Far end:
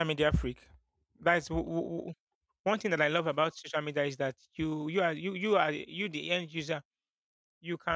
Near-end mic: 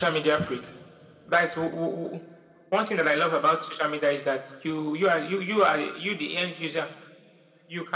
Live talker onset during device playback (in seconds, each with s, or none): none